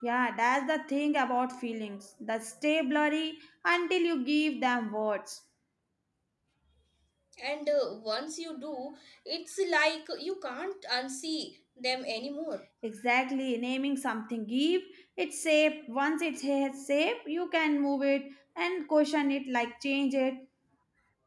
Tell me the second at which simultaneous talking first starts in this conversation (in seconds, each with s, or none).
none